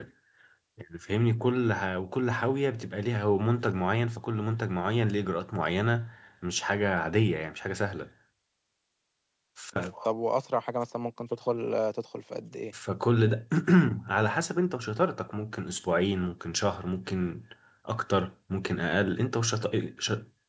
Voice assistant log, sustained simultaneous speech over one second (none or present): none